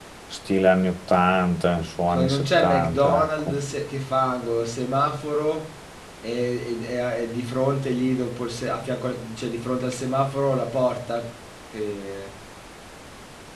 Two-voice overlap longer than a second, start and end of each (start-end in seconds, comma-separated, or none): 2.1-3.6